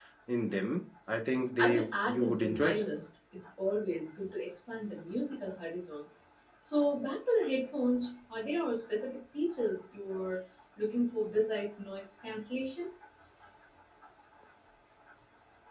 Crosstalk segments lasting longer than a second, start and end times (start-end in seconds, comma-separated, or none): 1.6-2.8